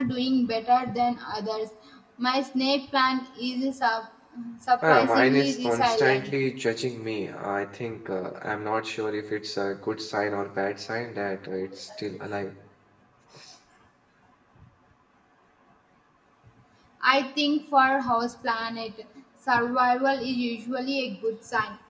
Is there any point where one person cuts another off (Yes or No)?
Yes